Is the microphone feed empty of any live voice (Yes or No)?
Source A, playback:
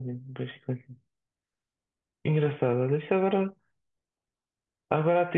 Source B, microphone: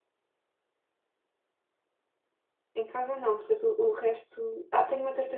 No